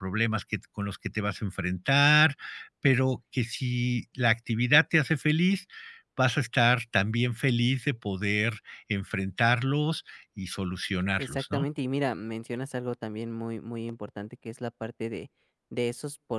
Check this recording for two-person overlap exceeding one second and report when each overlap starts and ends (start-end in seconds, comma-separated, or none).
none